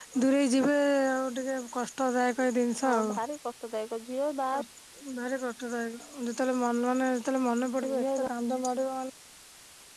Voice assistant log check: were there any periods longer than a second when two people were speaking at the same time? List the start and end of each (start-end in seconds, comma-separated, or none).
none